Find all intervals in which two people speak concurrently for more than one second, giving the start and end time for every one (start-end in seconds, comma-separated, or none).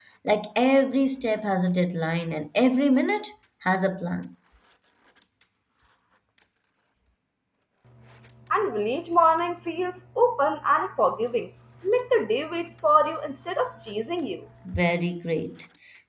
none